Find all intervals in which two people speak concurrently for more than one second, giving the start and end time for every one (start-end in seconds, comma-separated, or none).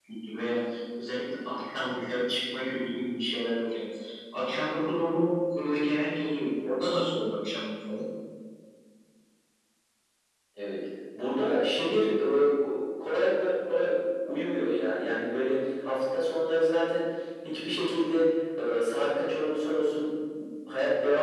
none